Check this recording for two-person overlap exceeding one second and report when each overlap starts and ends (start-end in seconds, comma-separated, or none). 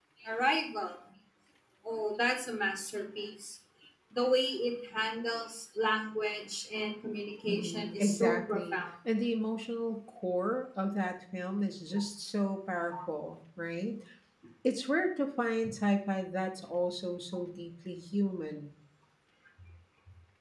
7.5-8.8